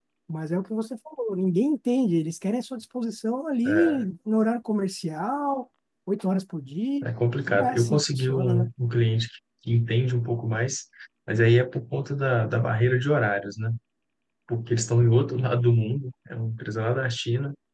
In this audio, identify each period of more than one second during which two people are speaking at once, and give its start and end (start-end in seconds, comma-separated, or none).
7.5-8.7